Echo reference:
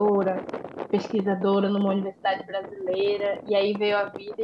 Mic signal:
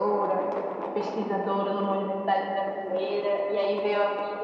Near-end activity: none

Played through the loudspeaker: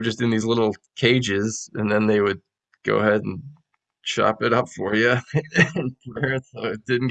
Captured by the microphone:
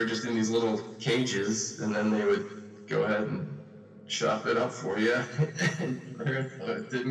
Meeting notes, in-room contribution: none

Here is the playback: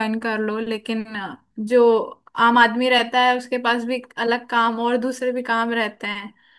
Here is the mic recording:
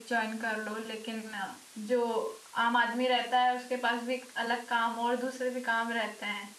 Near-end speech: none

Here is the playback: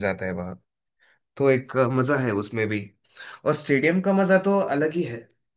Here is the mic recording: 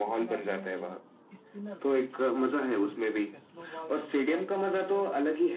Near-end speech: present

